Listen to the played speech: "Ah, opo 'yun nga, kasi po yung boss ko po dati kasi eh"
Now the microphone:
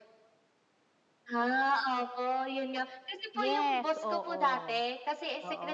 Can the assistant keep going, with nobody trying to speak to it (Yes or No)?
No